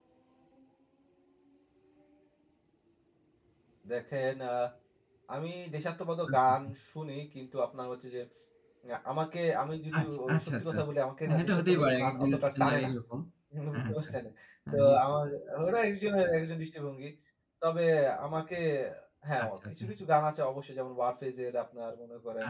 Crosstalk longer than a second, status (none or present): present